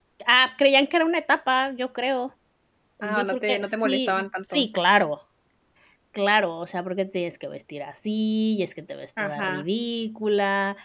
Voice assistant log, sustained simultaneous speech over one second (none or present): present